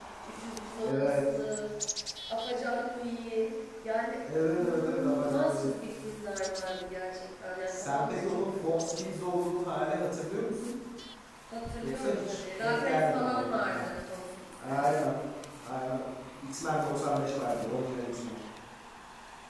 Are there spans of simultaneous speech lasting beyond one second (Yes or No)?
Yes